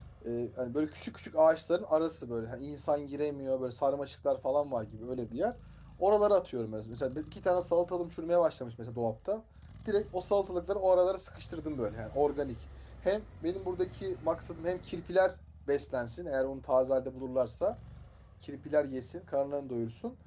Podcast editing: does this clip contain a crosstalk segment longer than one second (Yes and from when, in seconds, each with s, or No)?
No